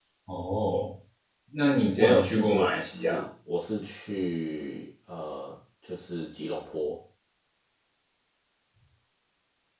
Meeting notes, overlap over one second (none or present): present